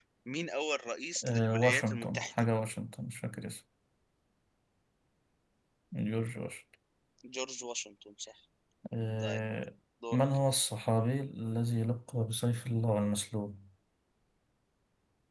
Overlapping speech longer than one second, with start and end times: 1.2-2.4

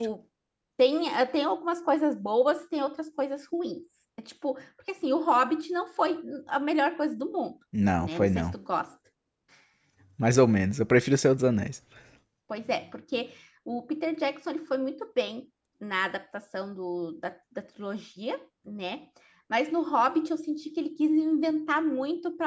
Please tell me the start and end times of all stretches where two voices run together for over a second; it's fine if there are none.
none

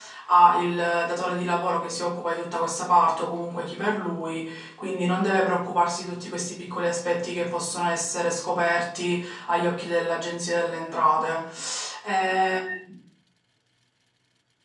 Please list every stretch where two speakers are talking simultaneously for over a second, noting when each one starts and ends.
none

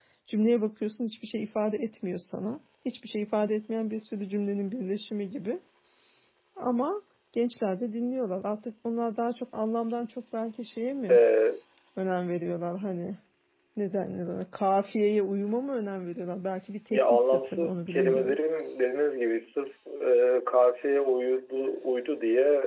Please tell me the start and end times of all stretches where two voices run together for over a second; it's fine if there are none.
16.9-18.4

